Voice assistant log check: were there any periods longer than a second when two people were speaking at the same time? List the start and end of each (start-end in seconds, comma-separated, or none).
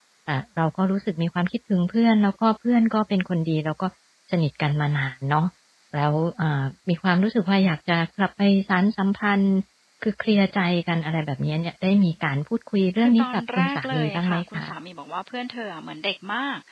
13.0-14.6